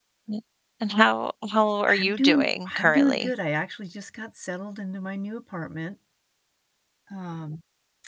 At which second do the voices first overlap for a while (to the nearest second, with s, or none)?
2 s